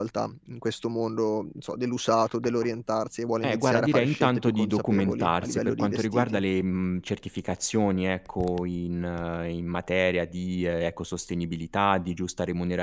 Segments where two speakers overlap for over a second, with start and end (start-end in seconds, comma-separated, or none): 3.4-6.4